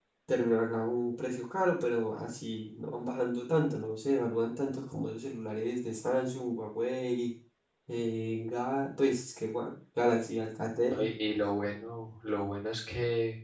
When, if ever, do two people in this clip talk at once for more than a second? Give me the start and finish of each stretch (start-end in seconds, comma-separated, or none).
none